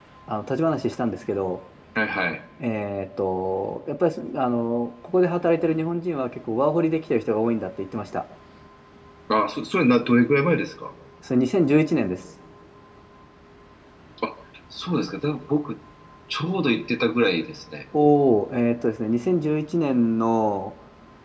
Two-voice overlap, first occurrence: none

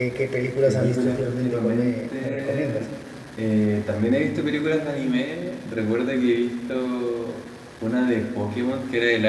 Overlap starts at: 0.7 s

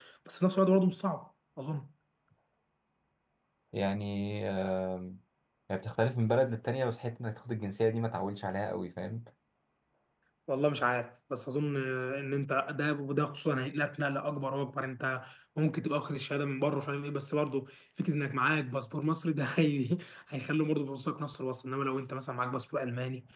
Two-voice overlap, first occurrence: none

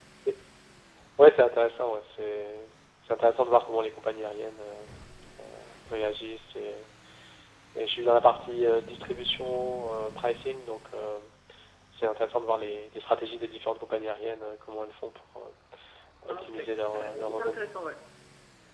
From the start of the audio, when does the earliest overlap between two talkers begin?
16.3 s

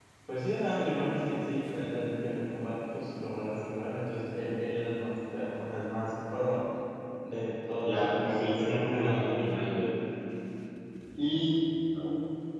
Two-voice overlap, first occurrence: 7.8 s

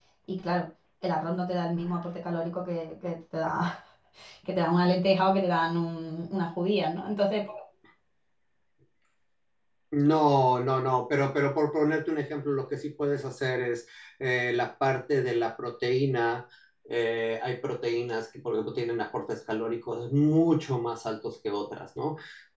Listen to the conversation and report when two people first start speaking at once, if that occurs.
none

